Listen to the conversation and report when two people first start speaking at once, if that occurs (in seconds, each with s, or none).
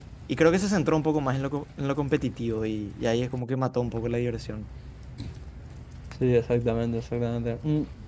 none